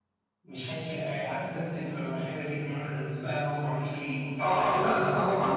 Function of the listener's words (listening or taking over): taking over